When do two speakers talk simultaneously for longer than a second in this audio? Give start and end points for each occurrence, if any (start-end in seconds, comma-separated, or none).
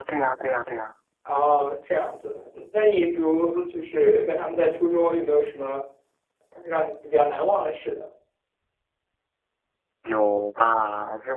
none